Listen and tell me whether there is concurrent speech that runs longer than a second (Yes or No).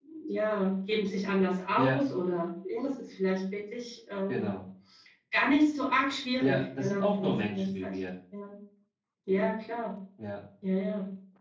Yes